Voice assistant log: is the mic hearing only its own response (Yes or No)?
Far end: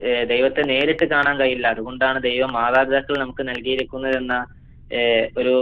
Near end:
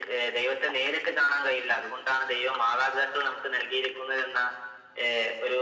Yes